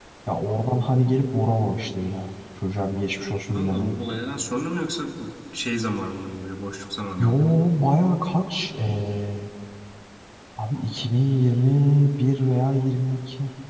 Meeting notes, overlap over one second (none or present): none